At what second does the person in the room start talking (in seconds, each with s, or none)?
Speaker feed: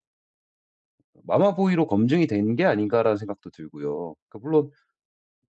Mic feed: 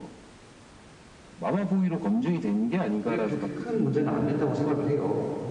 3.0 s